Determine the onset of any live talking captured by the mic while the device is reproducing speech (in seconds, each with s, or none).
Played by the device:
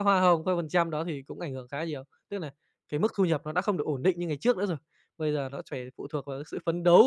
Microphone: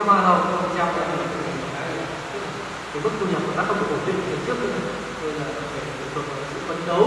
none